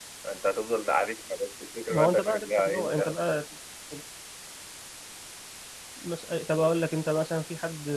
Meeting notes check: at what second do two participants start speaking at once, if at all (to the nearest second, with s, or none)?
2 s